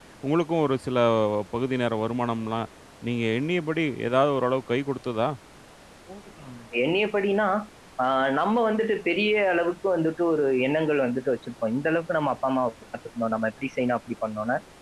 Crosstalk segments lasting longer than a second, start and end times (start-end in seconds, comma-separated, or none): none